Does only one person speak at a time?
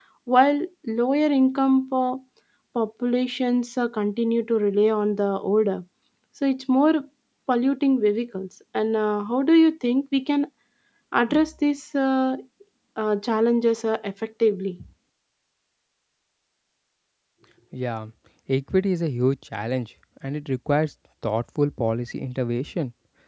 Yes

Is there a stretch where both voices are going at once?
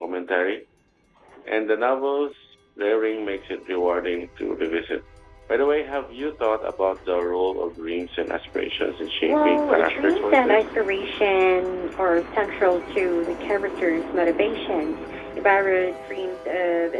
Yes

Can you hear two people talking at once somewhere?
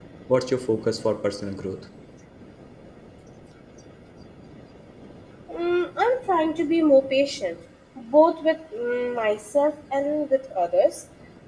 No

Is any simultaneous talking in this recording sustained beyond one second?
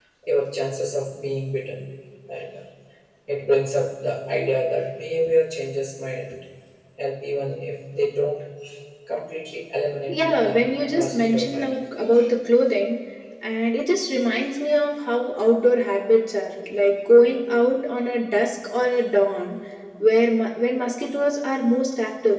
Yes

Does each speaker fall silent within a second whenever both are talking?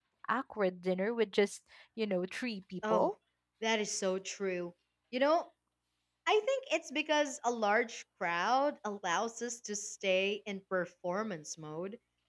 Yes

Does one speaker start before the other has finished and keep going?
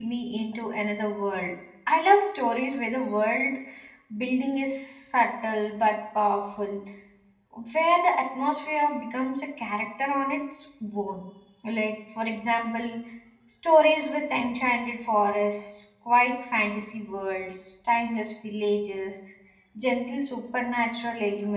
No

